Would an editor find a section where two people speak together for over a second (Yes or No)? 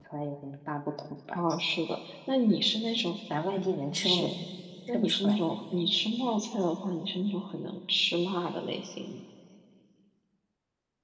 No